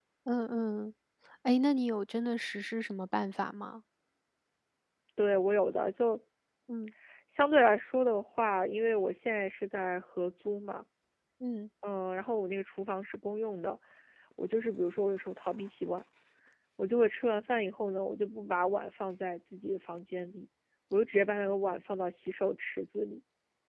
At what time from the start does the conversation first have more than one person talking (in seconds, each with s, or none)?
none